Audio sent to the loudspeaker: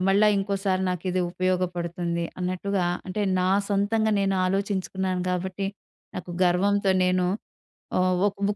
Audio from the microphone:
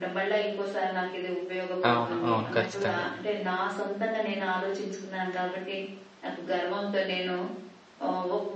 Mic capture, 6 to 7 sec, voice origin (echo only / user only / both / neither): echo only